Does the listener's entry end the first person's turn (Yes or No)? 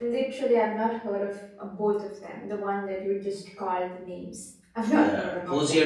Yes